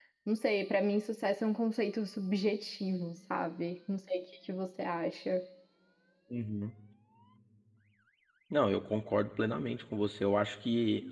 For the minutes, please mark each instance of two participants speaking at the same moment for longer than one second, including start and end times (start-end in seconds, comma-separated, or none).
none